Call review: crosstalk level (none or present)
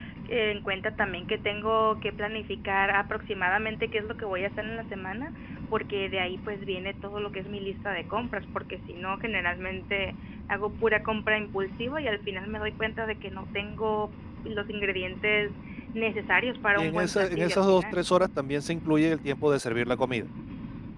present